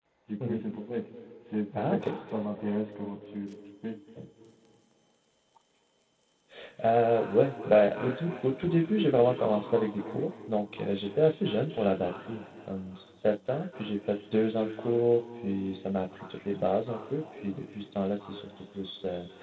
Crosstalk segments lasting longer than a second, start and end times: none

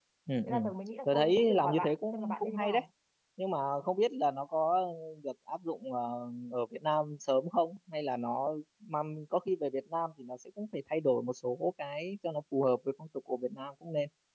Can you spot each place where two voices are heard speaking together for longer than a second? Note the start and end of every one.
1.1-2.8

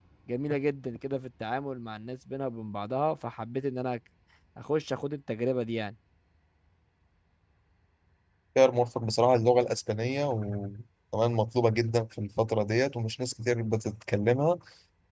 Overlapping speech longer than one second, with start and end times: none

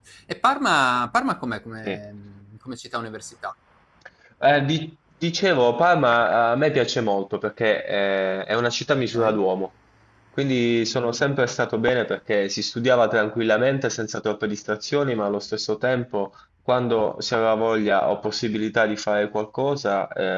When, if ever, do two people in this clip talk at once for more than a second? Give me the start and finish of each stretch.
none

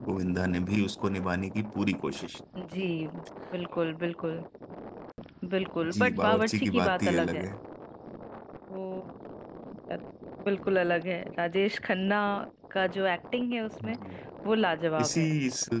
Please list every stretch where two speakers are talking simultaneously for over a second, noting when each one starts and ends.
5.9-7.4

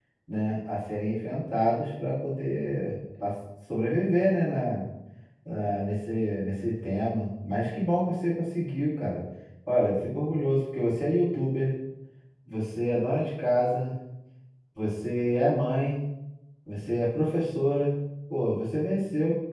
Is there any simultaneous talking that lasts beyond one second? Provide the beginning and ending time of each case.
none

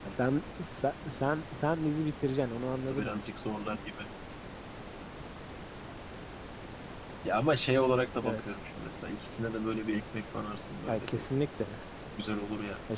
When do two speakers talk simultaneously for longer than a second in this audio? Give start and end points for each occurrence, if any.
none

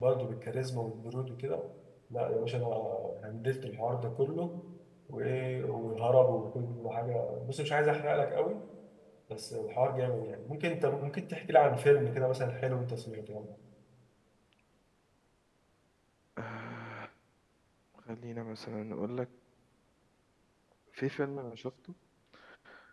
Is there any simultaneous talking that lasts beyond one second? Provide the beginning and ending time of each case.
none

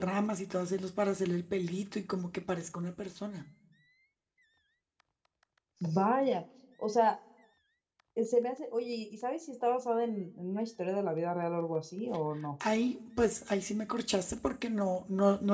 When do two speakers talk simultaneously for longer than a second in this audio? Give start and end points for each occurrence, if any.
none

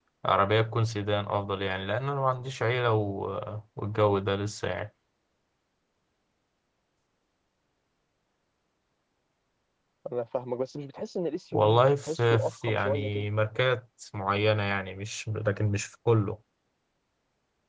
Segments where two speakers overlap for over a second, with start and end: 11.5-13.2

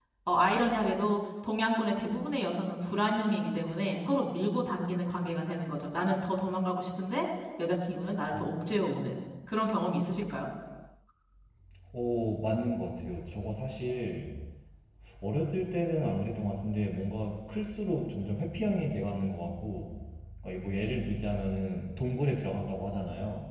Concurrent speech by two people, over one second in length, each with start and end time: none

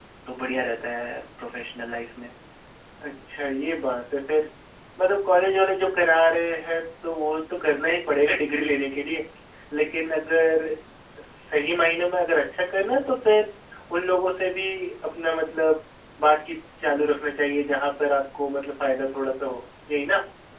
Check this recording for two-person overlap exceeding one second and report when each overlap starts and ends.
none

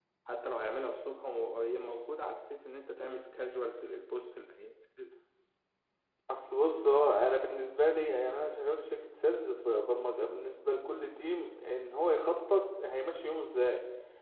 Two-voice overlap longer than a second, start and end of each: none

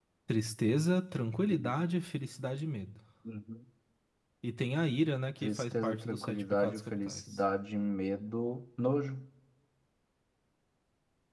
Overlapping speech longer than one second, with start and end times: 5.4-7.4

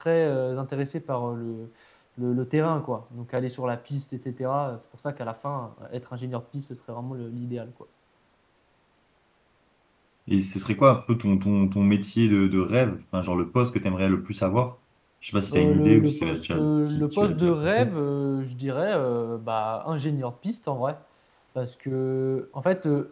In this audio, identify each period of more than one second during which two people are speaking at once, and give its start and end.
15.5-17.9

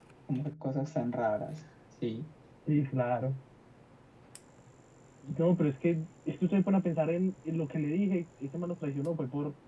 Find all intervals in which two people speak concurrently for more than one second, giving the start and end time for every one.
none

